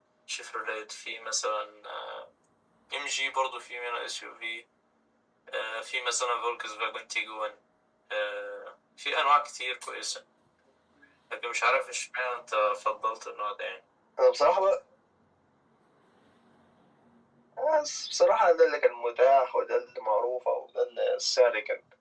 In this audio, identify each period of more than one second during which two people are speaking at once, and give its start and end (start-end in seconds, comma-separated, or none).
none